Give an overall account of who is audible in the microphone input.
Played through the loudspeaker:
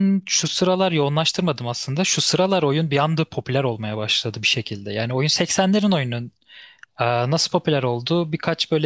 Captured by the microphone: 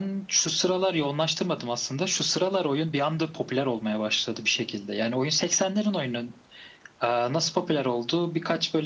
echo only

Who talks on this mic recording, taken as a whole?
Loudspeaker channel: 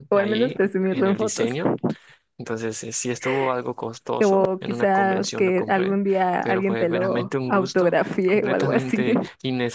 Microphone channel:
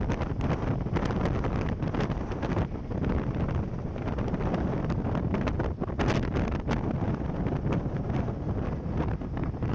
neither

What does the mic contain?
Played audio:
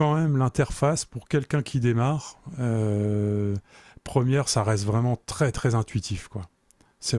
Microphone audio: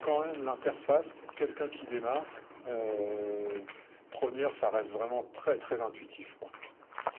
echo only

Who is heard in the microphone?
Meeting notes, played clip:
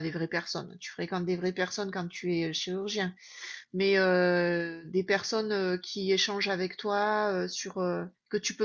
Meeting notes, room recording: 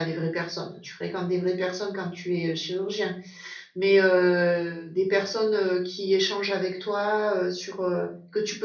echo only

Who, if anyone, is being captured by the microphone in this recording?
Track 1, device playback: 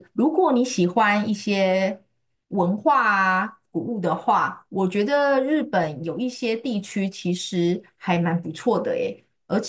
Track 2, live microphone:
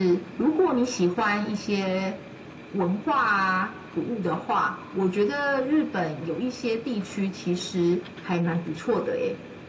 echo only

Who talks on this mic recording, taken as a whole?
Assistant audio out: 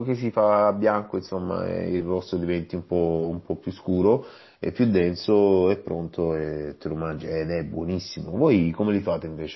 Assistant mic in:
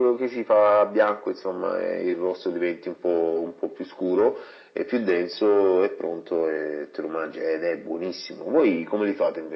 echo only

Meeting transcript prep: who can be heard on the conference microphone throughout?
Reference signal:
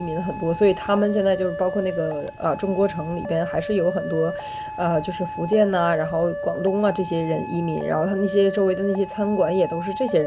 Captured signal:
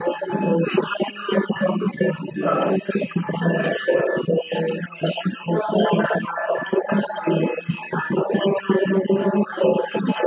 echo only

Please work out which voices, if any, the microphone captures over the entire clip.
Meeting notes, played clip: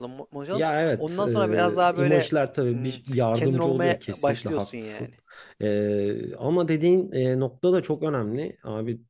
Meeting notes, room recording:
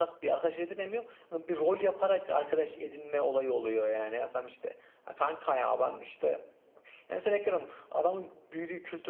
user only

